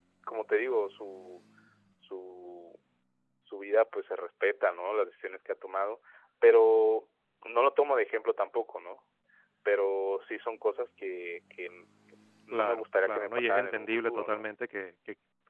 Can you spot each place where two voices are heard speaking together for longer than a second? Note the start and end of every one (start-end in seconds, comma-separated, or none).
12.5-14.4